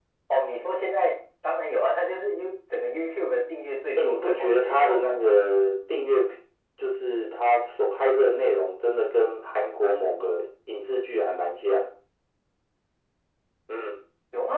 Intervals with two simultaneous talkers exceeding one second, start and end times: 4.0-5.4

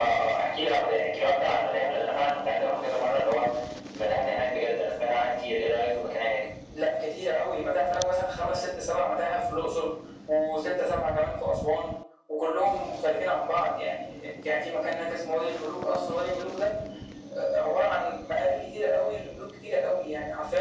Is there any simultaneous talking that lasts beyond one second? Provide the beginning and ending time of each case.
none

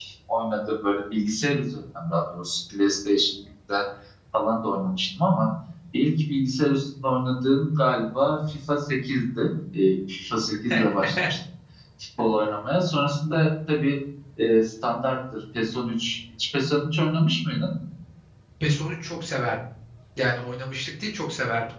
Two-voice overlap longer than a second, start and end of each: none

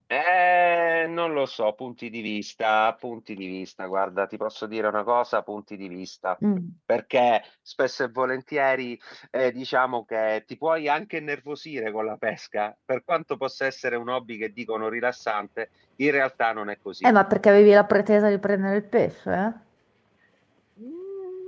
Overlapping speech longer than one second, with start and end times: none

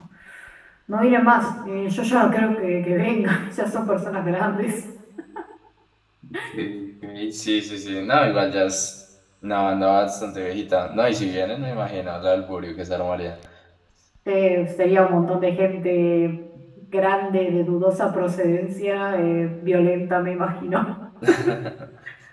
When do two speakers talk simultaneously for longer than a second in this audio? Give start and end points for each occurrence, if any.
none

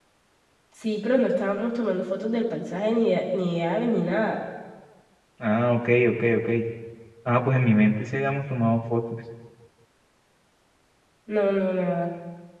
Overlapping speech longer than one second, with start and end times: none

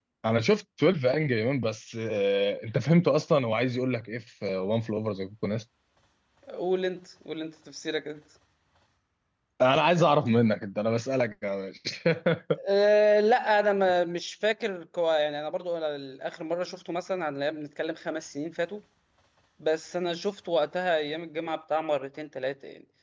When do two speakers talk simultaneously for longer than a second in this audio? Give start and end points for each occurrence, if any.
none

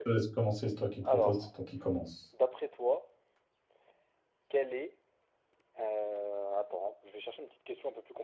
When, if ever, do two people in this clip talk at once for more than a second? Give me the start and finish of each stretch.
none

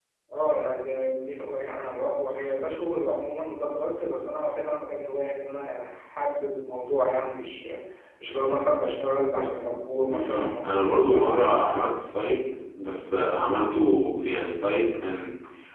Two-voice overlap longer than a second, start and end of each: 10.1-11.6

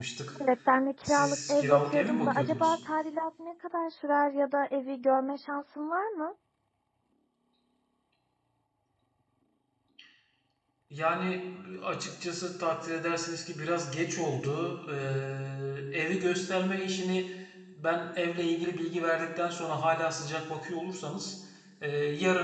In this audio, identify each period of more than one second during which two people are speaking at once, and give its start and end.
1.0-2.8

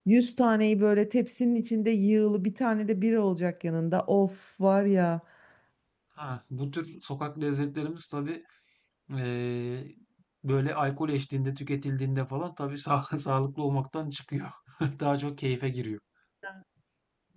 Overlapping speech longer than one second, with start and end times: none

